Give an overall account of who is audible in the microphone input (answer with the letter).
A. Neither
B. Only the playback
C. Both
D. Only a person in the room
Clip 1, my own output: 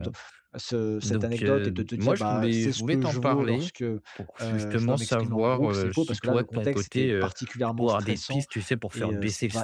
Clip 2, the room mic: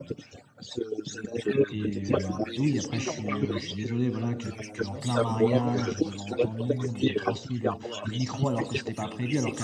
C